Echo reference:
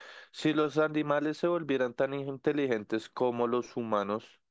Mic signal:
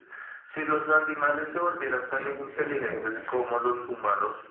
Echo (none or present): present